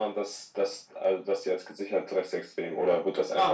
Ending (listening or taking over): taking over